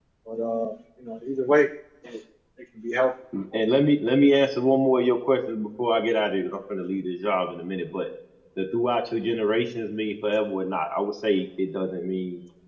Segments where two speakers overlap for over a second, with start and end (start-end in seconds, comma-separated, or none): none